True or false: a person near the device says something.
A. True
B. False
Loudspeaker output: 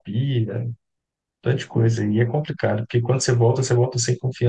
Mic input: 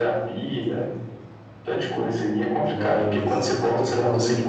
A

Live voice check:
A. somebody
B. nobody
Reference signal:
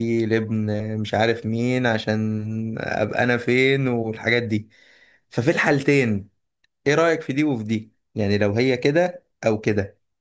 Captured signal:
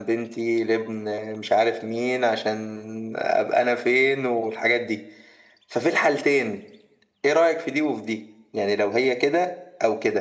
B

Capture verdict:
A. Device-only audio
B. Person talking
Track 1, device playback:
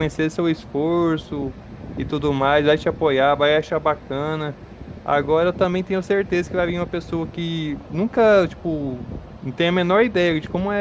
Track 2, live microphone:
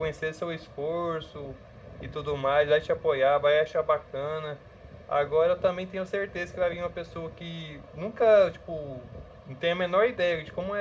A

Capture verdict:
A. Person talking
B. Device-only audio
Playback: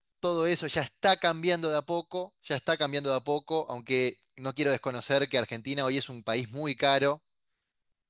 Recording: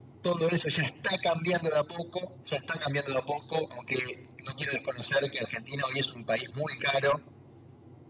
B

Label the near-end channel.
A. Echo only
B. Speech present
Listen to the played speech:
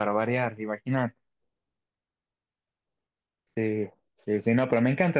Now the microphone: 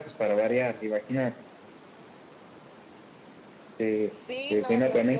B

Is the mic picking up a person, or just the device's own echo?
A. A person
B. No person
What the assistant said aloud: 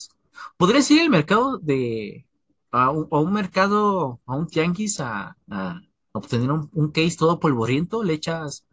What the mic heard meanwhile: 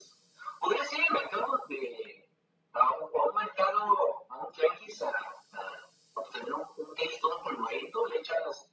B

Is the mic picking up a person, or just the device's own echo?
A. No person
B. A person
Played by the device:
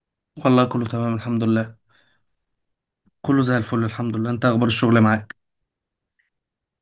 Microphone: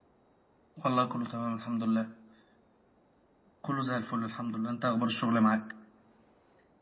A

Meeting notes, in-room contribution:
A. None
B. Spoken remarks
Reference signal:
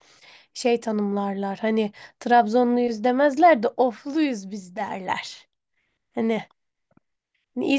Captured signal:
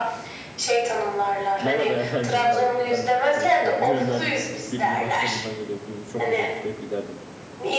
B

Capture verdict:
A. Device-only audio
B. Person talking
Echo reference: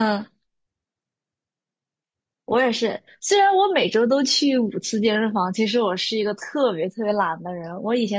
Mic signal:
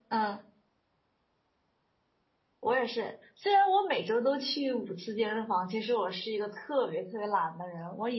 A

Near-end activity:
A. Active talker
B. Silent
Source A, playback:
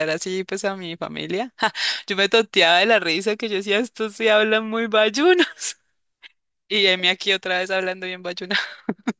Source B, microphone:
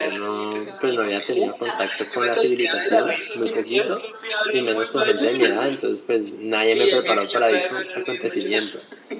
A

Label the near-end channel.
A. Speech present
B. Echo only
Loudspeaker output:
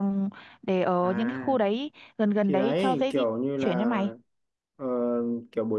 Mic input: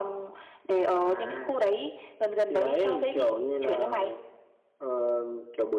B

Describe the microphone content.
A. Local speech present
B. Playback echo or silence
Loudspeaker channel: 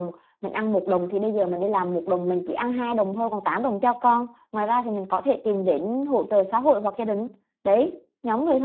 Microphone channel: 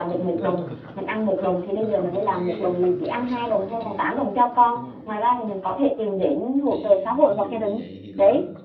A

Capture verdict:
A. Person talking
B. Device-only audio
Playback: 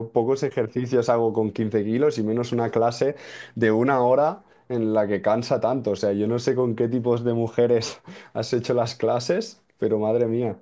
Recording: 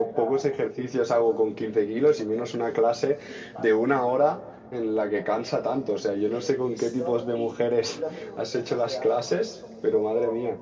A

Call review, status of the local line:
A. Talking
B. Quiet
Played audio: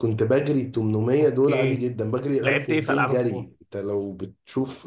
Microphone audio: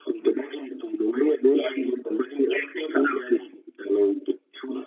B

